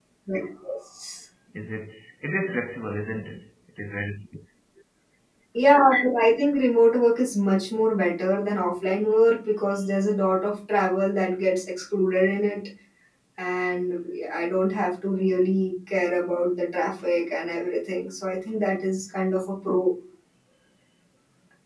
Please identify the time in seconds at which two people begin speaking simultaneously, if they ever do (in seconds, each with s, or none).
none